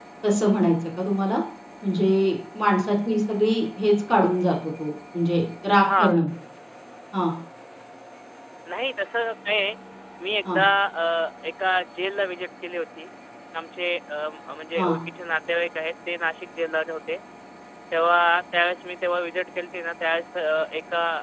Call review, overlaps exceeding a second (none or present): none